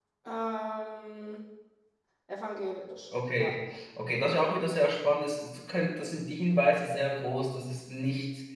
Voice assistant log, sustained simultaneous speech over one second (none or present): none